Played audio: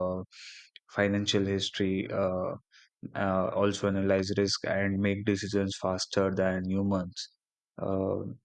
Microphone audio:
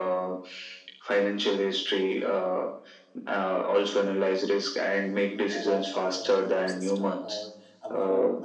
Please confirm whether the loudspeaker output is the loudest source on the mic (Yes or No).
Yes